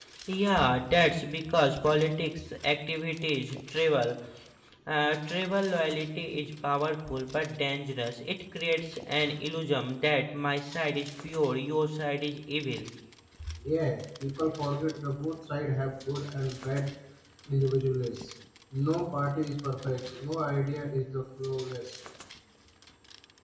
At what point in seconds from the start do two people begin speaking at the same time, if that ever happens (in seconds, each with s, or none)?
none